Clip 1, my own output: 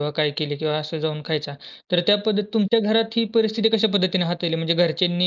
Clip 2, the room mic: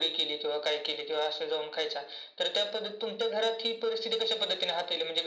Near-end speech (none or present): none